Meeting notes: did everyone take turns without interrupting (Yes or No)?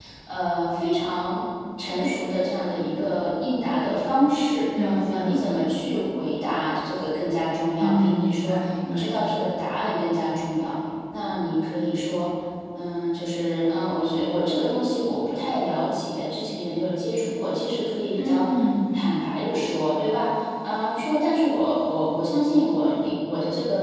No